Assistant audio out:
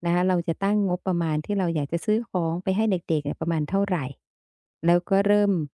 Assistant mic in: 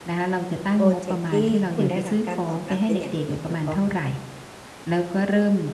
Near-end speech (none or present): present